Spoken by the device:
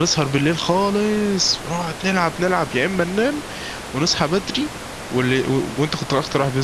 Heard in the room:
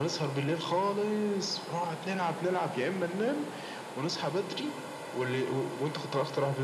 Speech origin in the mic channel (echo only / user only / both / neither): echo only